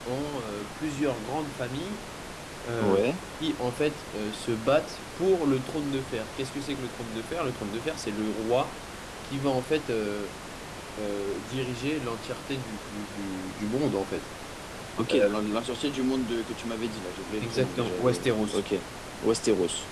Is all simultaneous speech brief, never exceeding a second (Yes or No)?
No